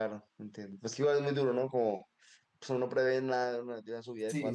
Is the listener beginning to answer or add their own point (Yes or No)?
Yes